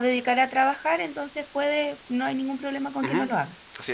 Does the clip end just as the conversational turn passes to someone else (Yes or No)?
Yes